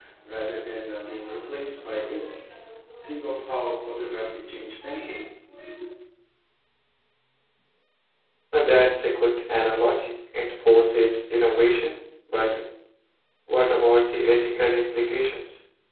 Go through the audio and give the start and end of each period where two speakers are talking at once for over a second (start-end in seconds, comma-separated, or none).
none